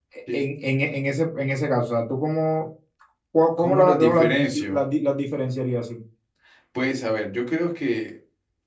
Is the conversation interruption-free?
No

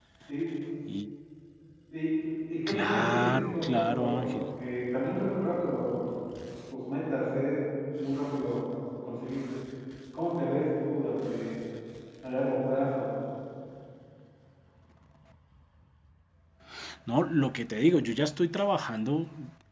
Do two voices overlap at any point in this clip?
Yes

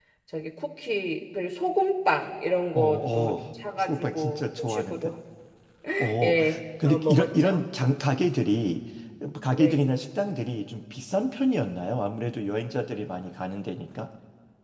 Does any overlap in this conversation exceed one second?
Yes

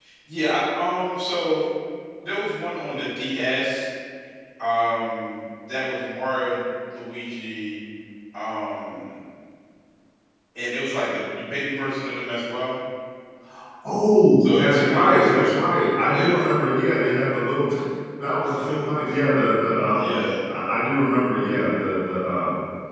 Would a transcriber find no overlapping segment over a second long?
No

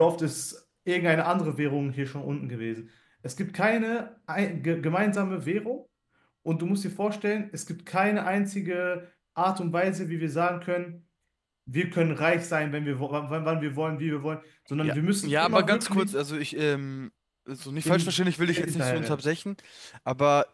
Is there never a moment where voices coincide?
No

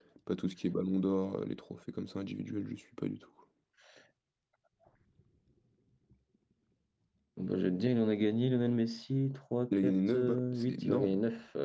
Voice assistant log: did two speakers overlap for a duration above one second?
Yes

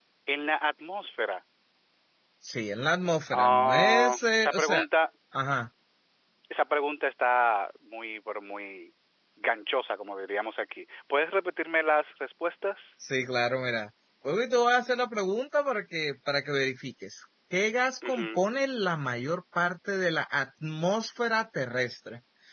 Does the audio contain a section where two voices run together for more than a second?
Yes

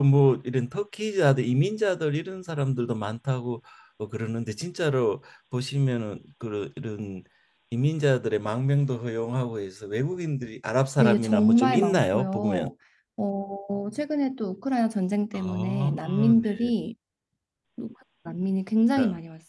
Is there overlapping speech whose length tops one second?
Yes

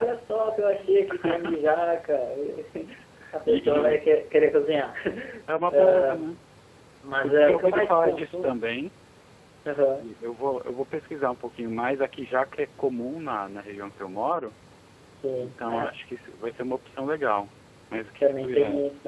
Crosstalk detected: Yes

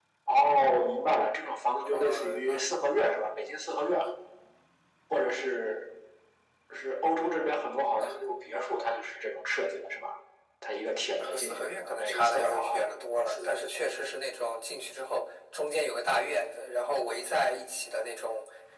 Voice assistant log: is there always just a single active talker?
No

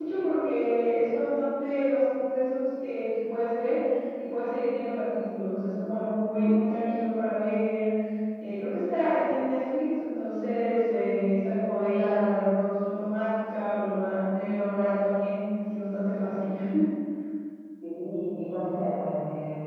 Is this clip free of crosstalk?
Yes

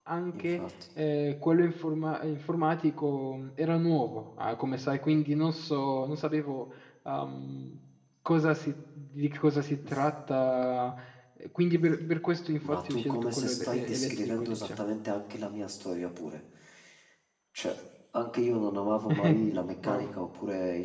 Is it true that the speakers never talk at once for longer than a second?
No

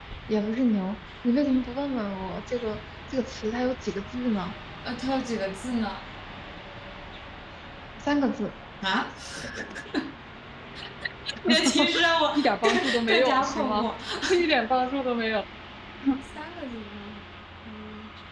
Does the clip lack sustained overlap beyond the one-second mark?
No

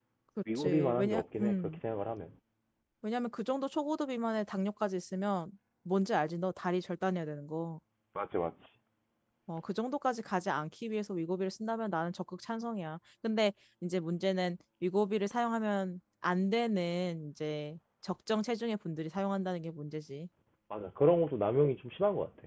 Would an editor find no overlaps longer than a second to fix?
No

